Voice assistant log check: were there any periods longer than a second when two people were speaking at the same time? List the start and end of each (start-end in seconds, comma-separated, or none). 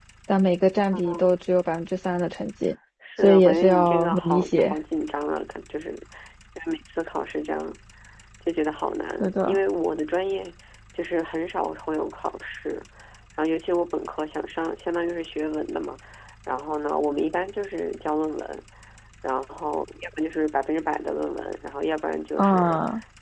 3.2-4.8